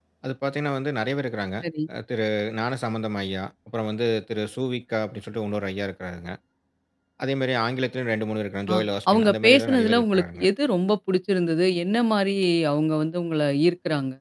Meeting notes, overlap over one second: present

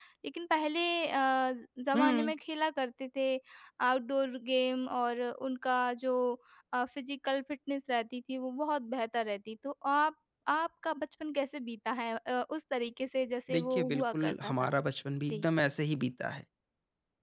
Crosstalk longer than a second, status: present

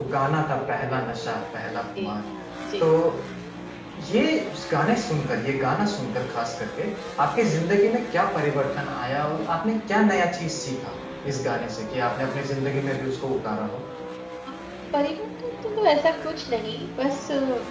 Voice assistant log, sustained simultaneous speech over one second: none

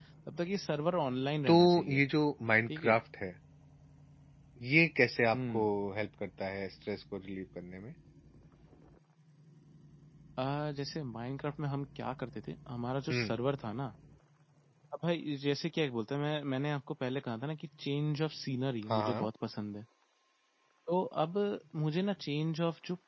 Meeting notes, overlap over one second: none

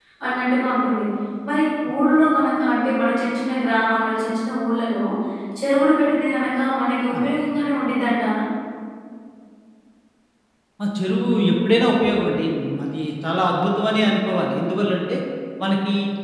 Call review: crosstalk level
none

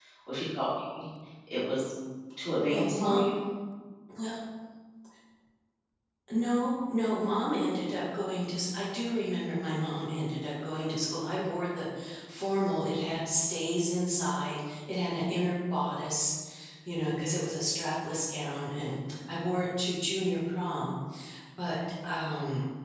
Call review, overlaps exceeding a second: none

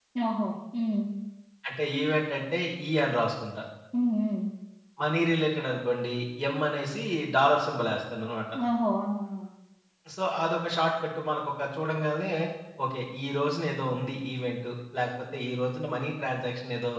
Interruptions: none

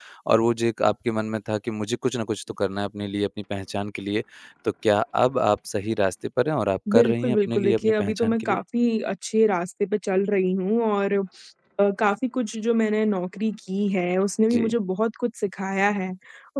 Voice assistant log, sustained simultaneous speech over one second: present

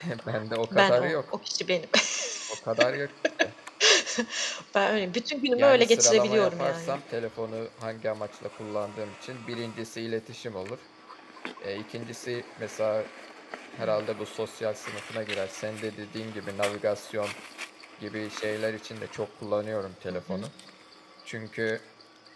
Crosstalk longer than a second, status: present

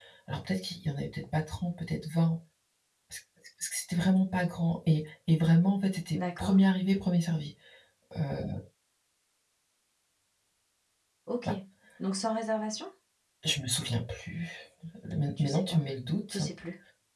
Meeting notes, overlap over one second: none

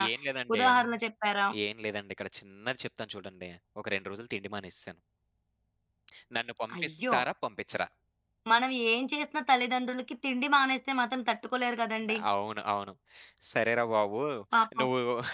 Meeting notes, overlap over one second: none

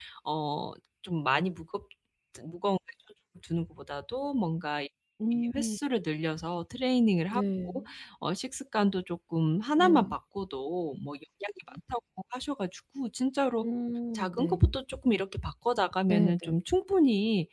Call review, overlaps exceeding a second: none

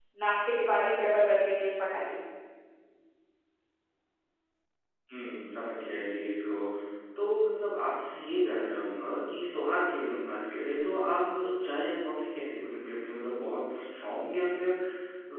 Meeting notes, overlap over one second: none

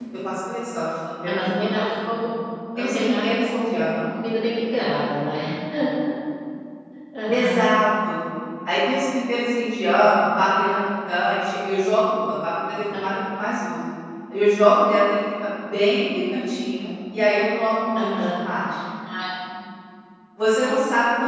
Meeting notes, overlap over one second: present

